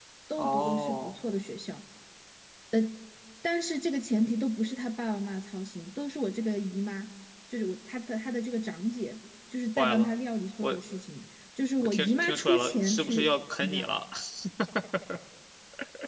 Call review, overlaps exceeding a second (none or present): present